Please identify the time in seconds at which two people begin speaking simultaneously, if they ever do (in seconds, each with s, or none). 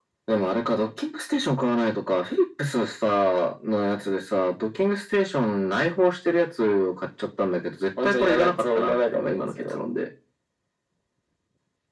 8.0 s